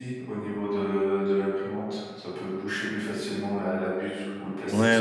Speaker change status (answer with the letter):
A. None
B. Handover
B